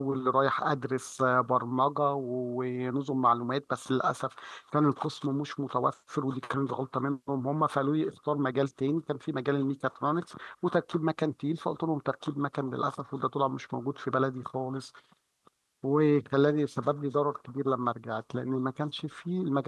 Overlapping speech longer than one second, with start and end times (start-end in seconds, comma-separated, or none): none